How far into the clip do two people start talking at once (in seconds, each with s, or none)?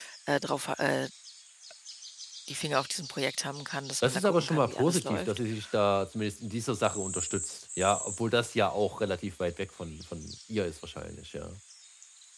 4.0 s